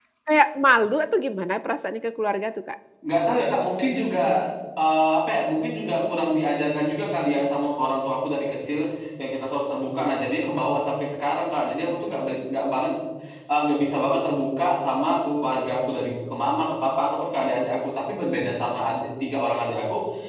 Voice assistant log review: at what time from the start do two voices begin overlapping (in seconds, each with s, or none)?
none